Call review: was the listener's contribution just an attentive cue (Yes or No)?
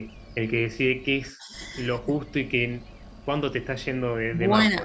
No